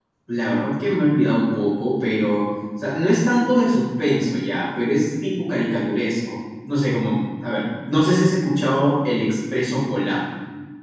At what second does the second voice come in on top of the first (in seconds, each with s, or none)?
none